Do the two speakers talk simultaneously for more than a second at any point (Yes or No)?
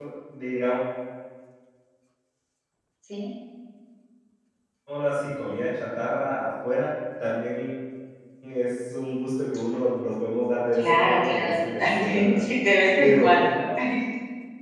Yes